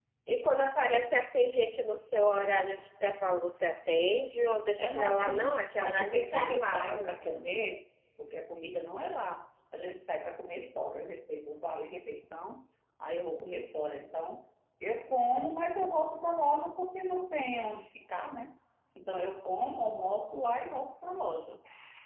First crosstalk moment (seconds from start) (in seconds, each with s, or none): 4.8 s